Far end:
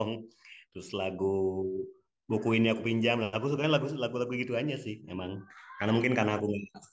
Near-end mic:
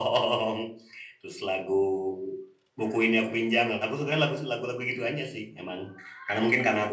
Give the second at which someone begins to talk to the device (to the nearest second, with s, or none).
none